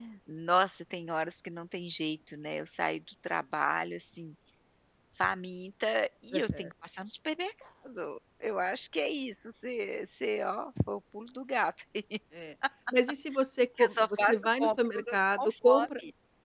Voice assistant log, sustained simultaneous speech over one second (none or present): present